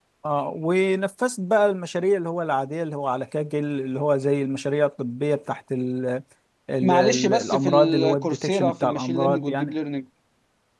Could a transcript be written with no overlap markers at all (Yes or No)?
No